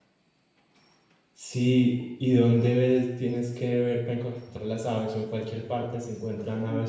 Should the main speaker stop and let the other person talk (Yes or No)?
Yes